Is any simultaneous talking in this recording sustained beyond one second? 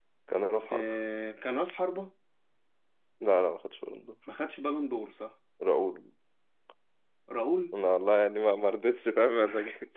No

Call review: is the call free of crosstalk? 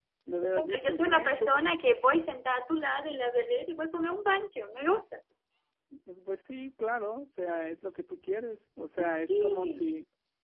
No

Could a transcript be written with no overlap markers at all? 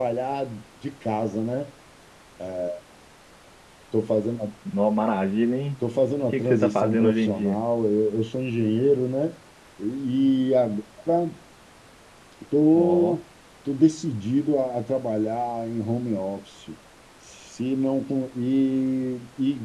No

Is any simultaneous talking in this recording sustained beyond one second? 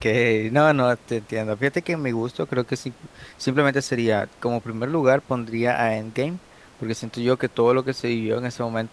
No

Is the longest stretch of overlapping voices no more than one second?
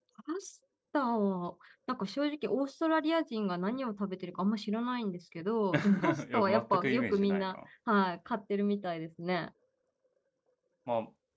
No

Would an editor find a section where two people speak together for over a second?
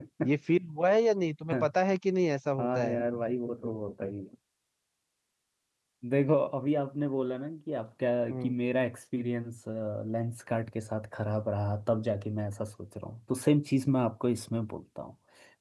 No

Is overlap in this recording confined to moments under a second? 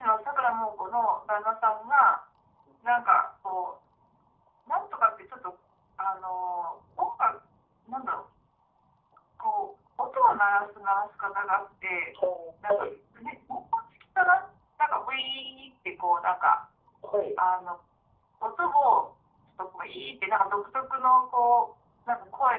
Yes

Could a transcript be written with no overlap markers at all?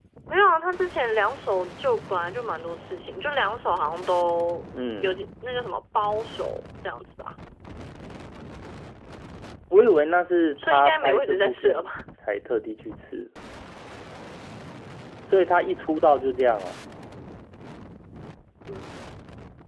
No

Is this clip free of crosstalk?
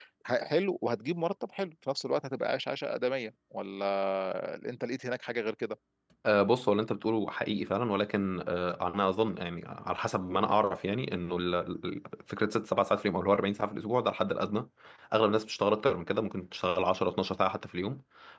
Yes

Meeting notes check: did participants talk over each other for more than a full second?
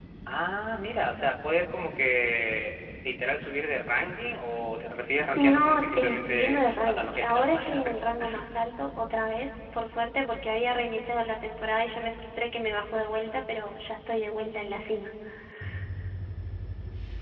Yes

